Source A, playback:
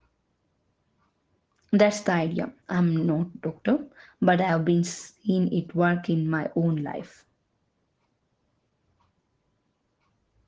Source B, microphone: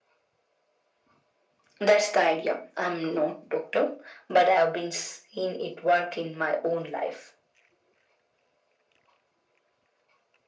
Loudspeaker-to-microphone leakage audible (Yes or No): Yes